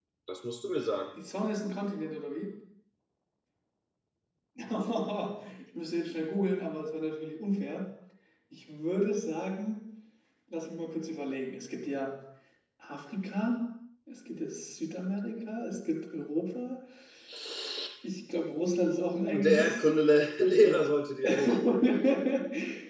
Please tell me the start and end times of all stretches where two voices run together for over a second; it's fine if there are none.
18.5-19.9

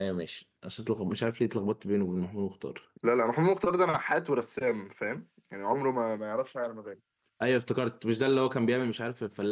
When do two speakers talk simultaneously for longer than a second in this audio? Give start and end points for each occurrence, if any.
none

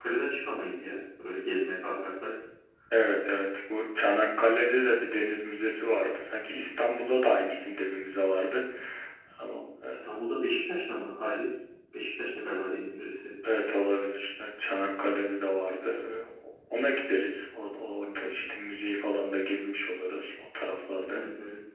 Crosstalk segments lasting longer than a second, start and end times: none

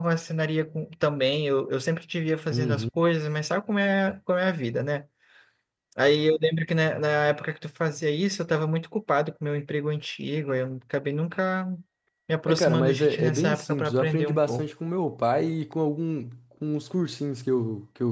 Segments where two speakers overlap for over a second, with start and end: 12.5-14.7

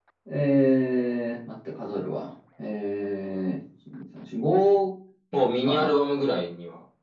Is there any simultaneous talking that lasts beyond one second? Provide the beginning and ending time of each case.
none

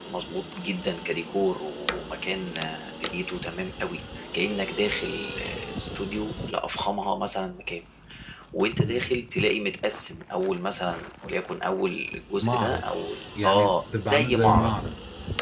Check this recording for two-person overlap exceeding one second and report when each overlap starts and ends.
13.4-14.7

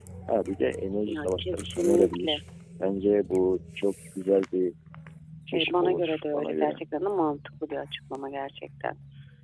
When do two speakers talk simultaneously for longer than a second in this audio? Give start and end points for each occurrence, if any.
1.1-2.4, 5.5-6.7

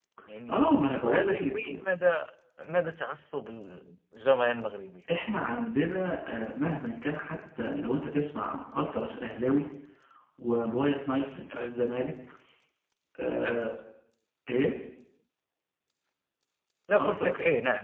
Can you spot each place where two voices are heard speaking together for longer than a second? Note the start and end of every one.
0.5-1.8

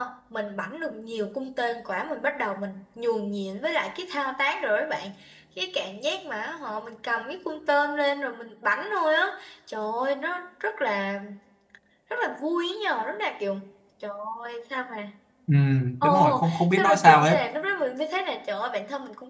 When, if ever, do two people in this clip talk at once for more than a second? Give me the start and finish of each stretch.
16.0-17.4

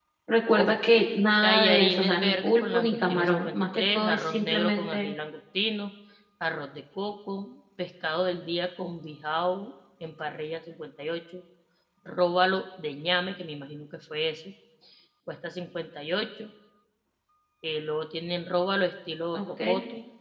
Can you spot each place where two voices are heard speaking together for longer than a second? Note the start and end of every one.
1.4-5.1

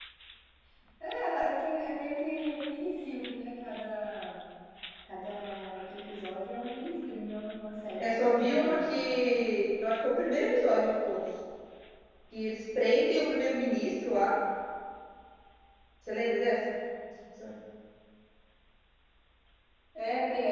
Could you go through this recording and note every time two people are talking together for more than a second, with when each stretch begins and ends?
8.0-9.2

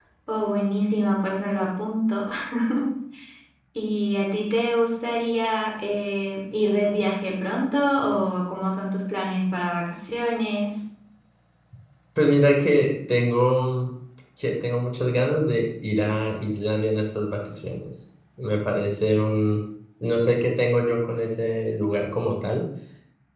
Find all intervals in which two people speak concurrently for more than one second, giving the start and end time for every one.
none

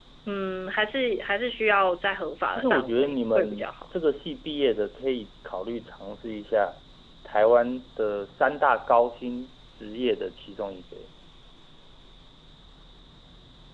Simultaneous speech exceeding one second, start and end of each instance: 2.5-3.7

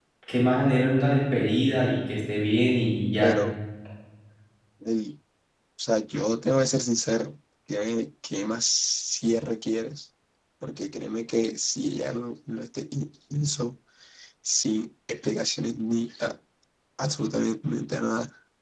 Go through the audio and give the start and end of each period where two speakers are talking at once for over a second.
none

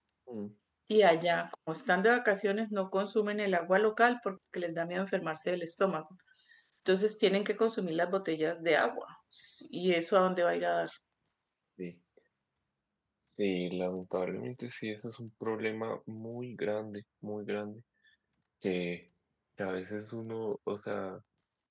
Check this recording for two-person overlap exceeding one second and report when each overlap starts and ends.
none

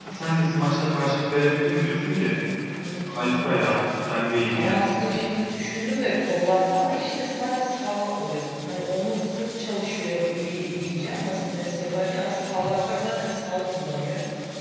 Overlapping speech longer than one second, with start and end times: none

